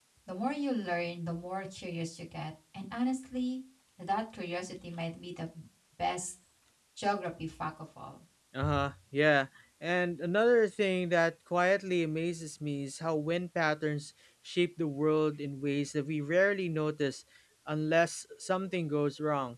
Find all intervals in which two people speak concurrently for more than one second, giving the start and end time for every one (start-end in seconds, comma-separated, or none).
none